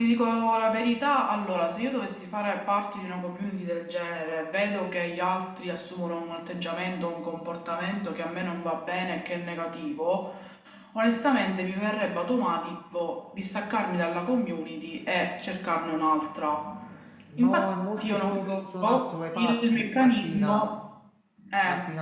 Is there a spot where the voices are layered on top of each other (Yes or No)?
Yes